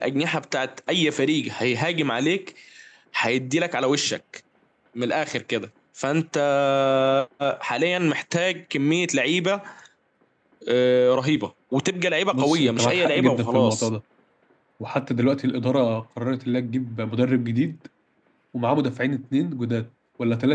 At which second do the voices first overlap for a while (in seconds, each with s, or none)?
12.3 s